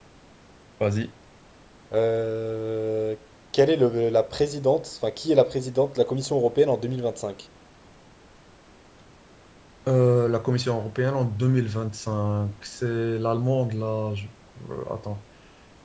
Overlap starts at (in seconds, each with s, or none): none